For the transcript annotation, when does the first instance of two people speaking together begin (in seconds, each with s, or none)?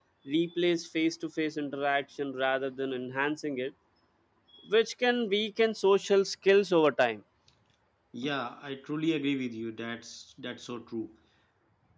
none